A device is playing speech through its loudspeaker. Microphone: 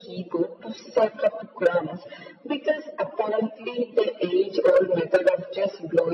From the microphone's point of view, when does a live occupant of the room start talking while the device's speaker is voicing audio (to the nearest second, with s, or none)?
none